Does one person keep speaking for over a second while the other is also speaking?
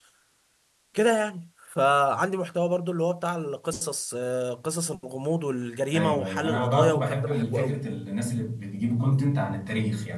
Yes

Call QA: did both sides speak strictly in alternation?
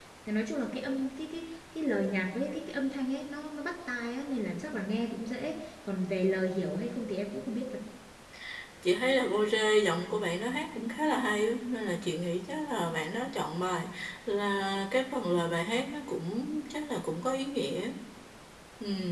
Yes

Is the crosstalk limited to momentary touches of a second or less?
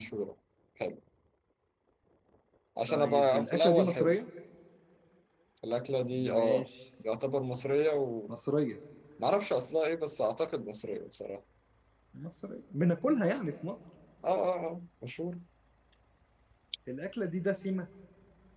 No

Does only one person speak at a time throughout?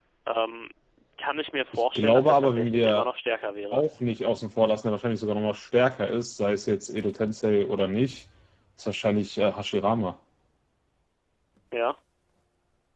No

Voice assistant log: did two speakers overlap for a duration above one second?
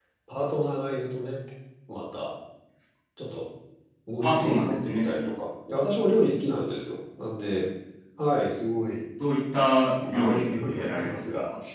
Yes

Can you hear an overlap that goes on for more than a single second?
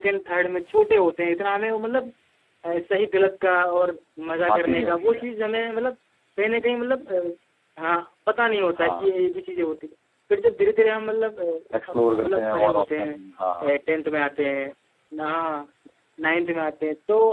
Yes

